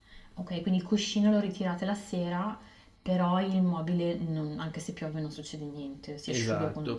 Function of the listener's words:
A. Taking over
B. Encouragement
A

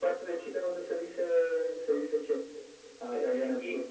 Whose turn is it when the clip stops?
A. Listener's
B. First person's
A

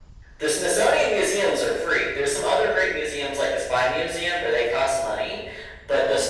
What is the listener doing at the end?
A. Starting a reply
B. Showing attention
B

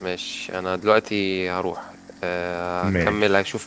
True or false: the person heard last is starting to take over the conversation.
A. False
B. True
A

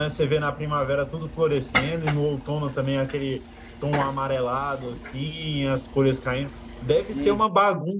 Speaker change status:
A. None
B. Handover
A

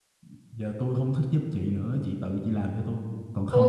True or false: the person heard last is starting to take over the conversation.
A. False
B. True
B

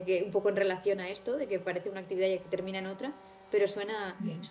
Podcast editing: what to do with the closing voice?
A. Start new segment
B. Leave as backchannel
A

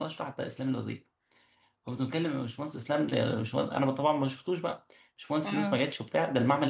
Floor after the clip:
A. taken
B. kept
B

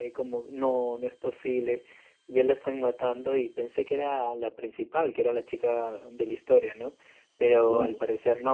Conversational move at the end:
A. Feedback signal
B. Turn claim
A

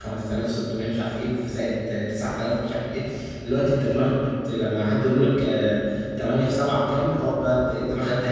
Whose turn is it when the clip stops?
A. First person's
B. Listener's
B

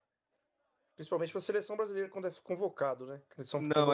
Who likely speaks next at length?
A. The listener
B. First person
B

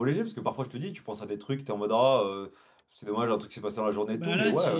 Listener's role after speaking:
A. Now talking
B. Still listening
A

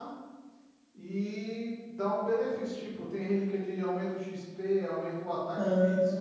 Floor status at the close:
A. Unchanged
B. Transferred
B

